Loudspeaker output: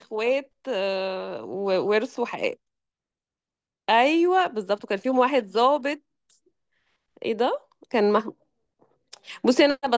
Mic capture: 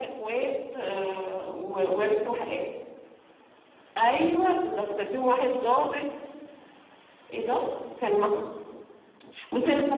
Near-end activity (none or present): none